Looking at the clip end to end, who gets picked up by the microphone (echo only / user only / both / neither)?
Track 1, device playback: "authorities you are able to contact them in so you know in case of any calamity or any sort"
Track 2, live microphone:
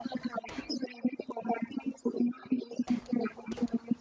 echo only